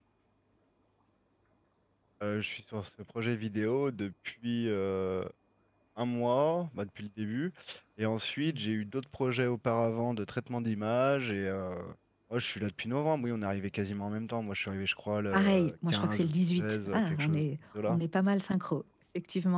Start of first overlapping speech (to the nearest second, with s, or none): 15 s